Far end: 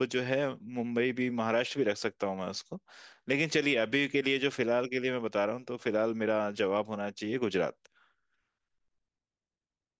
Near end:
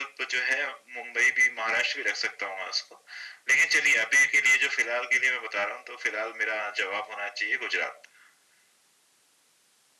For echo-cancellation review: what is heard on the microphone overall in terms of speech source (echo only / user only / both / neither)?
echo only